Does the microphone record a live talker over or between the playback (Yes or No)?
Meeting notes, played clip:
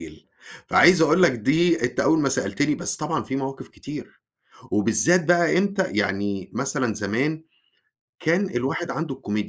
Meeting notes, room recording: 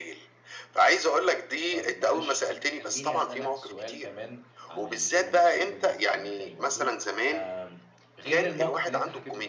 Yes